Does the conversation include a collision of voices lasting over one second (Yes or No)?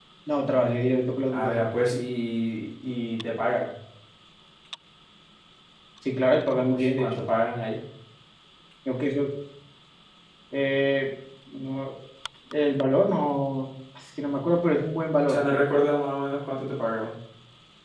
No